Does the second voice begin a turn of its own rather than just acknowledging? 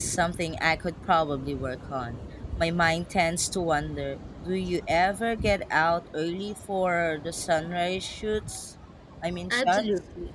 Yes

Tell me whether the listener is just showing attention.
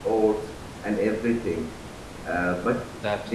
Yes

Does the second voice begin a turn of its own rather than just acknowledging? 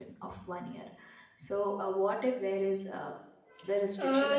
Yes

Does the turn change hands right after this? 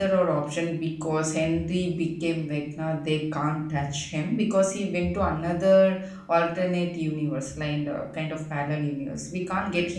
No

